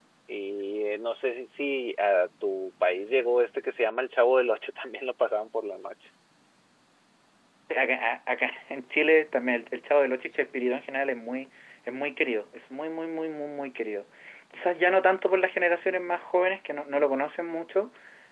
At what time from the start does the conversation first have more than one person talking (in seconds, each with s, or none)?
none